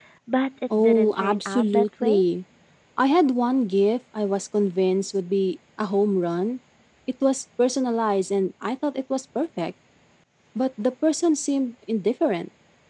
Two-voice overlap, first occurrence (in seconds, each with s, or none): 0.8 s